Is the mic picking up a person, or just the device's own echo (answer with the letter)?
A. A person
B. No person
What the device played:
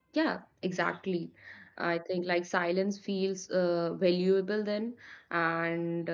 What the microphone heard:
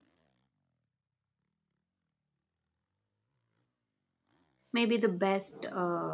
A